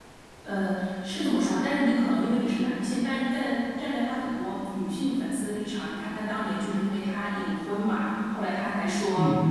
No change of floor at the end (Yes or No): Yes